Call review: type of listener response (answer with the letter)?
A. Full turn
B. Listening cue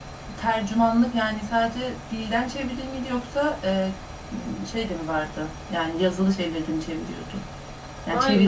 A